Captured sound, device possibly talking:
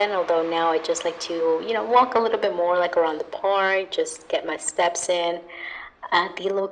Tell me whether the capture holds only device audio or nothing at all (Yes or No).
Yes